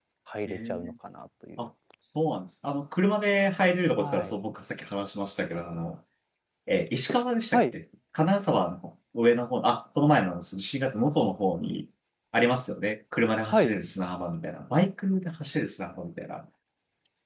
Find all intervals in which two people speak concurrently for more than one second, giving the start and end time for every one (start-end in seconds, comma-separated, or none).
none